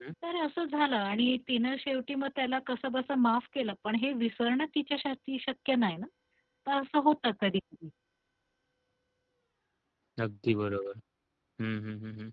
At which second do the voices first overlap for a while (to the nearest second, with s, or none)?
none